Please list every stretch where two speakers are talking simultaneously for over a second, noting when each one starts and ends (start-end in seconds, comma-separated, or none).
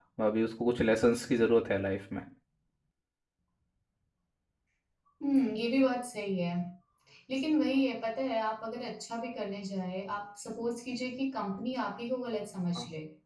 none